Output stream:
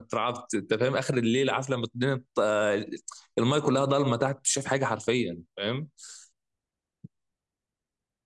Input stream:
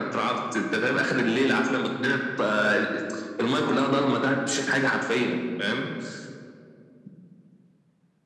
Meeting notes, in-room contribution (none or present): none